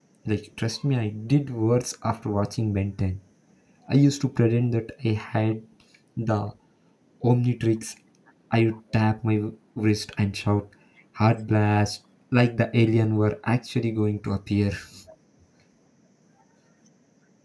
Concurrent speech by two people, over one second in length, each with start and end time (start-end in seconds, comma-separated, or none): none